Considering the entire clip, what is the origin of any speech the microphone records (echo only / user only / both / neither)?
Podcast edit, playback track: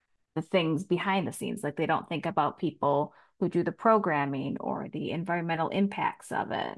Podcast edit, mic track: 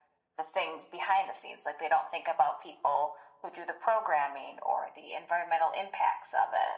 echo only